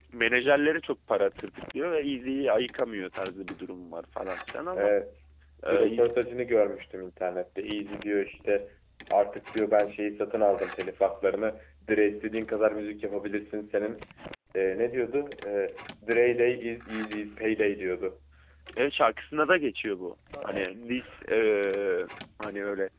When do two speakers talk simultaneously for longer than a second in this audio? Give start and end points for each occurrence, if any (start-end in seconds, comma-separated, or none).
none